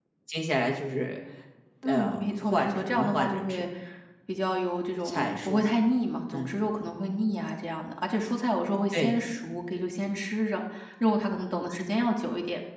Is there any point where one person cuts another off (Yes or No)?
Yes